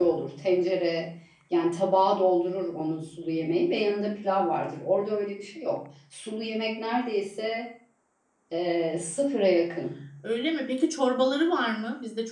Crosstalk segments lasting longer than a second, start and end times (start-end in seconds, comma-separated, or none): none